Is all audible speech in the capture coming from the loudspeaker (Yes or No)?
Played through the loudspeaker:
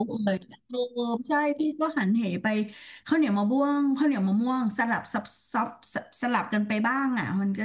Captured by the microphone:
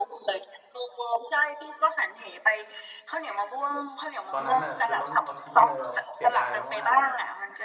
No